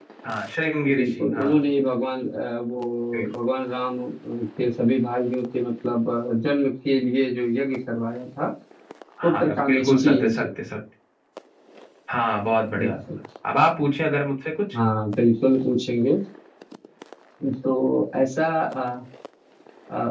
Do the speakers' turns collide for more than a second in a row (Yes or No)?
Yes